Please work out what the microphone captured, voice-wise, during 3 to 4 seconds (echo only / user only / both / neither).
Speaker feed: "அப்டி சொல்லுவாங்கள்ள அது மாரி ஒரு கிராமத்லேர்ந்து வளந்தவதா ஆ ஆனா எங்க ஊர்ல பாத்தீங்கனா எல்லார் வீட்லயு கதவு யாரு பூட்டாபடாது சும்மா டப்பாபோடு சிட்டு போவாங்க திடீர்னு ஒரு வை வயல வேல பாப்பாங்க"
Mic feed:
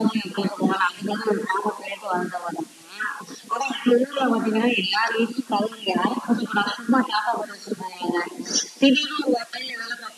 echo only